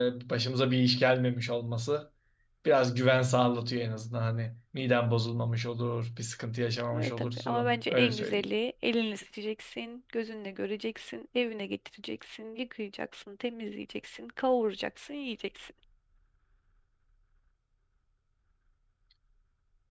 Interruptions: present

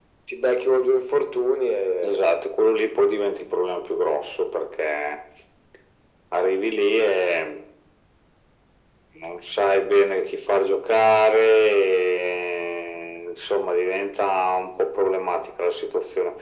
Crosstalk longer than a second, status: none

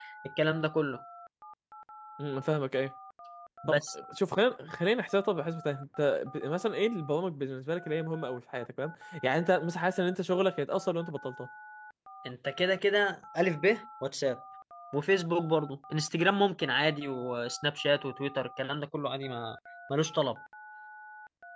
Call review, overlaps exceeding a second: none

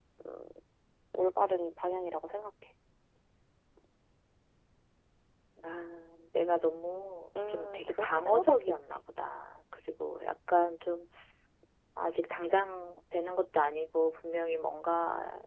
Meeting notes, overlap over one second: present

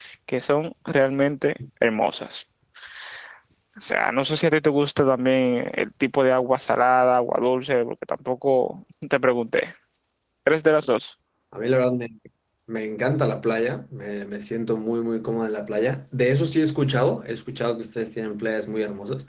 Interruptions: none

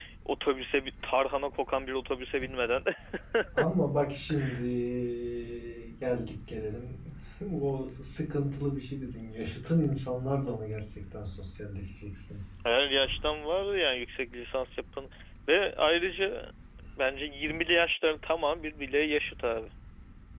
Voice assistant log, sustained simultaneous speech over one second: none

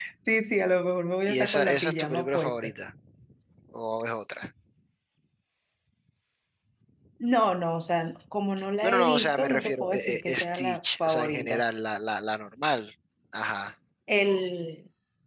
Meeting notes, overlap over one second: present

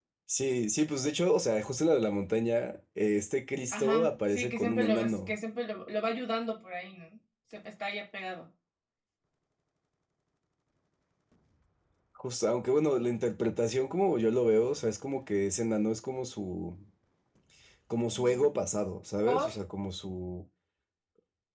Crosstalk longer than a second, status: present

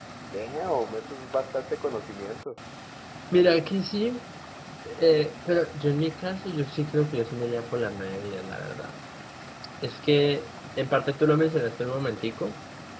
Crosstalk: none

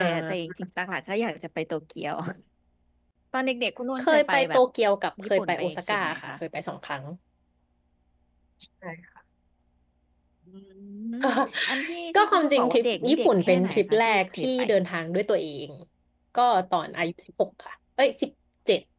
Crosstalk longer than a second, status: present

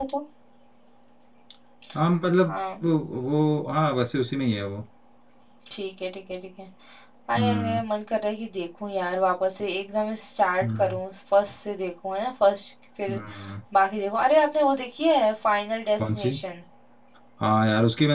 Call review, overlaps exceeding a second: none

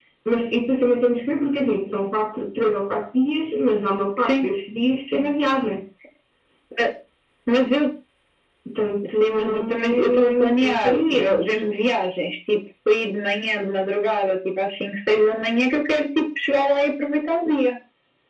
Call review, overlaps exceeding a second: present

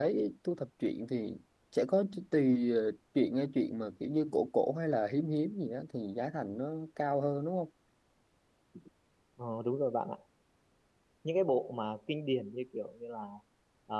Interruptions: none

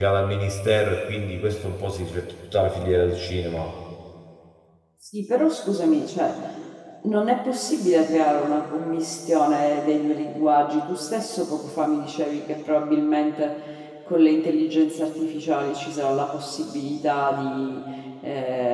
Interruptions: none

